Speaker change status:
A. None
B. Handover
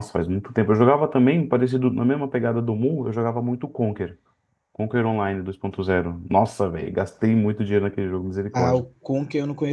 B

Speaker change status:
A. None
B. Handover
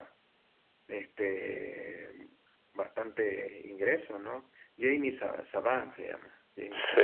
B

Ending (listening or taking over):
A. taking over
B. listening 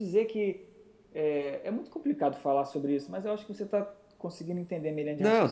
A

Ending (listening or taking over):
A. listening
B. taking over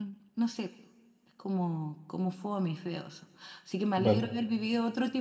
A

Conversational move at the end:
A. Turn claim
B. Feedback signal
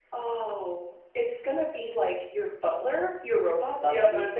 A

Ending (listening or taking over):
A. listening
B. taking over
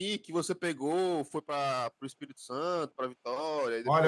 B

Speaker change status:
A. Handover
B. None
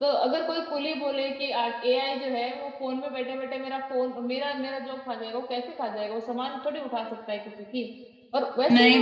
A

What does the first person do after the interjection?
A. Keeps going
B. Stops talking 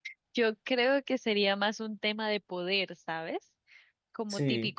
A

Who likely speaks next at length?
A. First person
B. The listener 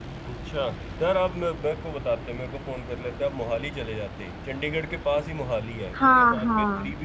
A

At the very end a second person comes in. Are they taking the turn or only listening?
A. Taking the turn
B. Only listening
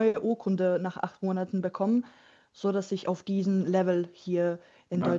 A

